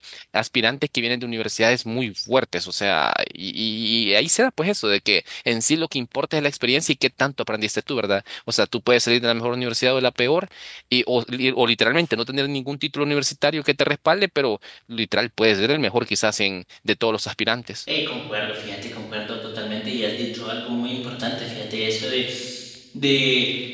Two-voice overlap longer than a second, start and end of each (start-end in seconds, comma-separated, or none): none